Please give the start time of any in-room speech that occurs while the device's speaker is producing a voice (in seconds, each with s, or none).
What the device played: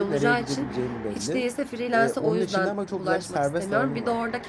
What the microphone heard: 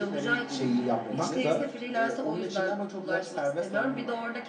0.5 s